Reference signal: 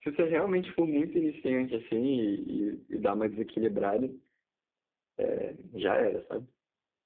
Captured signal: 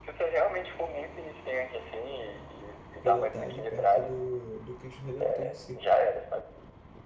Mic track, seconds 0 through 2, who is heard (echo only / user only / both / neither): echo only